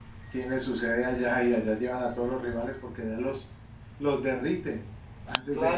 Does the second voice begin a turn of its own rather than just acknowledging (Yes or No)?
Yes